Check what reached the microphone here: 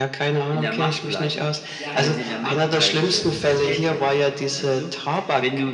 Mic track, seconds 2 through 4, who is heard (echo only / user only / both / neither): both